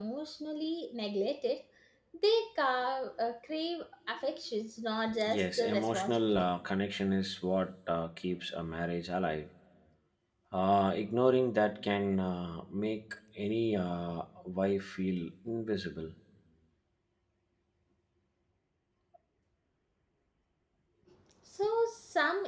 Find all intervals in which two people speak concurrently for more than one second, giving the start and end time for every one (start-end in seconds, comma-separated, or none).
5.2-6.5